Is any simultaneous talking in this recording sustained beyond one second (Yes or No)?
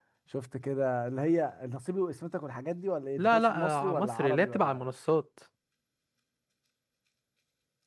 Yes